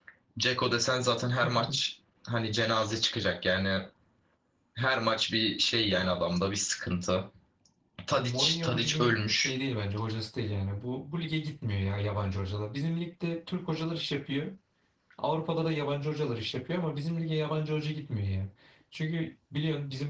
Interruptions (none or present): present